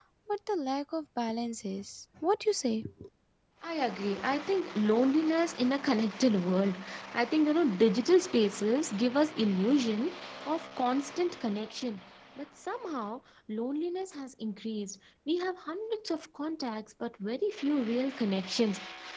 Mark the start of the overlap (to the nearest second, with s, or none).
none